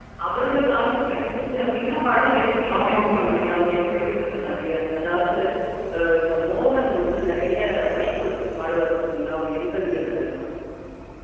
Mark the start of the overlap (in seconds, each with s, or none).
2.7 s